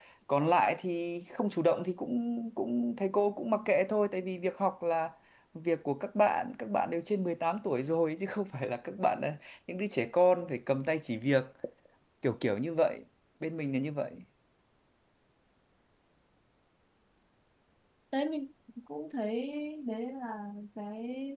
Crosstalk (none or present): none